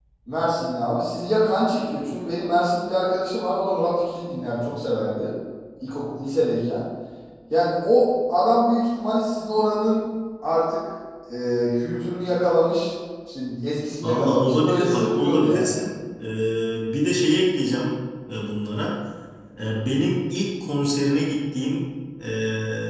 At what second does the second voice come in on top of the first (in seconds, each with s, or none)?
14.0 s